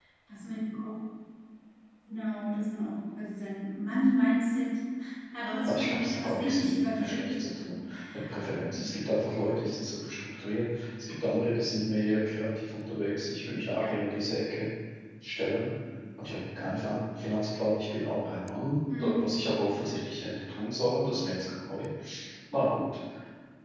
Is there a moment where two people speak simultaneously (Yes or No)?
Yes